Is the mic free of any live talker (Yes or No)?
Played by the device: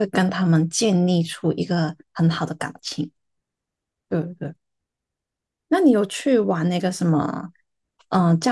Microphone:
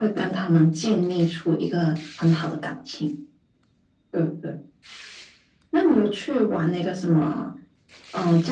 Yes